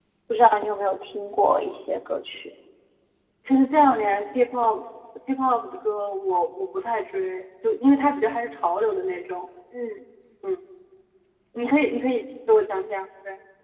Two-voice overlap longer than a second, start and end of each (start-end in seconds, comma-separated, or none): none